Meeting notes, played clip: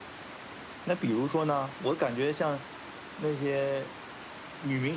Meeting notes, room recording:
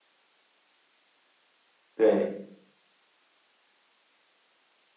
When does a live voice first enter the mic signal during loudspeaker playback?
1.9 s

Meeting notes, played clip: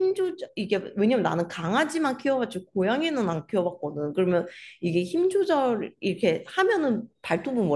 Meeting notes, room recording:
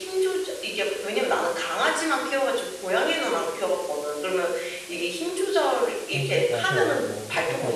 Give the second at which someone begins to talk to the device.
6.1 s

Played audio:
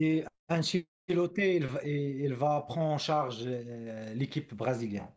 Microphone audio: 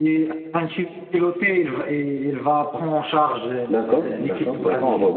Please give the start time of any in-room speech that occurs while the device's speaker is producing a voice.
3.7 s

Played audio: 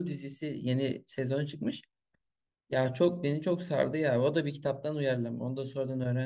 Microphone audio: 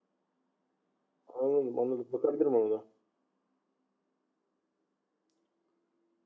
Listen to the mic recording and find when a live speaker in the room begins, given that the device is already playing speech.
1.3 s

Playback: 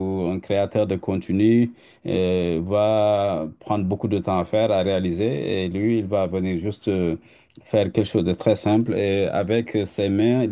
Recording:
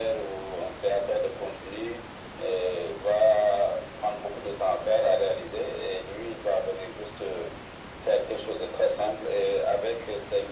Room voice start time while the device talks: none

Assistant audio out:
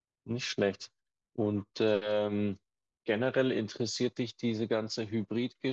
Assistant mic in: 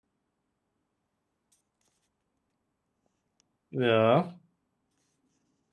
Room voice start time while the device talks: 3.7 s

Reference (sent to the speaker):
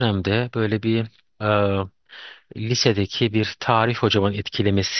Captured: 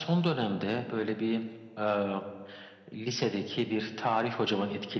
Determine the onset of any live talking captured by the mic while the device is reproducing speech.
none

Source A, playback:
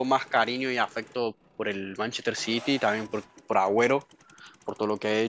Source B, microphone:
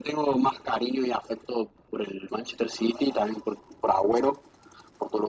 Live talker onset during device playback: none

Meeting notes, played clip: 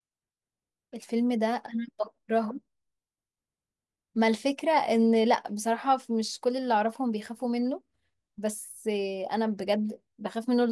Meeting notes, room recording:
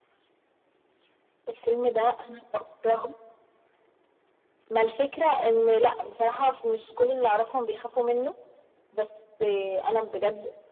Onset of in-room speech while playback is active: none

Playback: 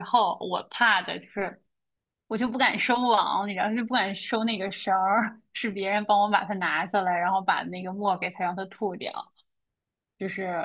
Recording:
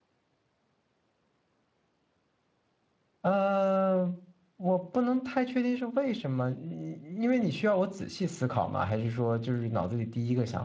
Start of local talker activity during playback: 3.2 s

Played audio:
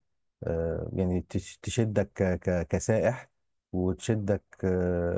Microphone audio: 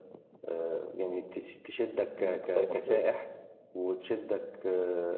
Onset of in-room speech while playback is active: 2.2 s

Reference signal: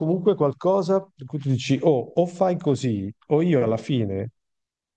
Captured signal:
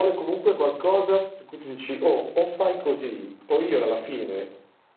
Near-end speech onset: none

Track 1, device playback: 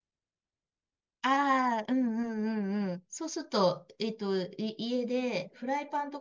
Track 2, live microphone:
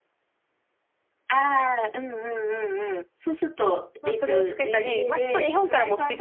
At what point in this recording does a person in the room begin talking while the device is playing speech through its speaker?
4.0 s

